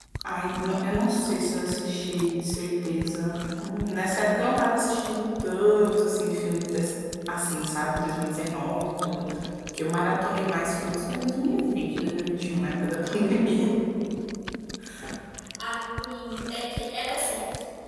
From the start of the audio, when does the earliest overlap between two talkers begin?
none

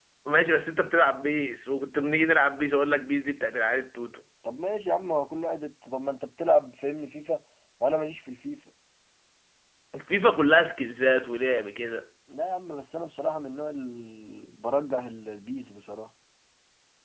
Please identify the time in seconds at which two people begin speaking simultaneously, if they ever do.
none

